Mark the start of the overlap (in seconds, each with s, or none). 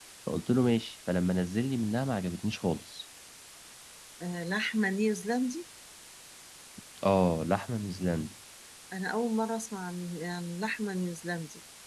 none